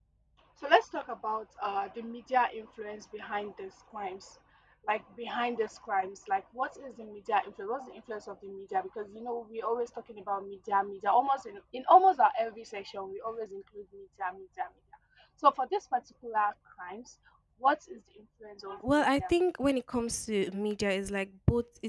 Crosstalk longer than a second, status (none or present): none